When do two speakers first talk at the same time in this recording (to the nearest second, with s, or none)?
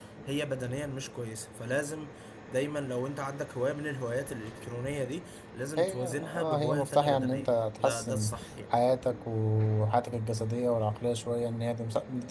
6 s